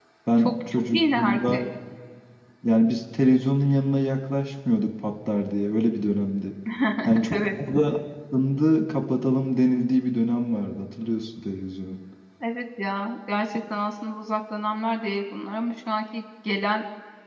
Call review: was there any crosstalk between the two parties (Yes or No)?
Yes